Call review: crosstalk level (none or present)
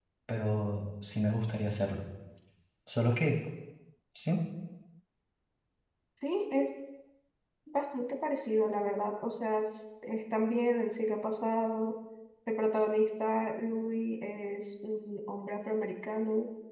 none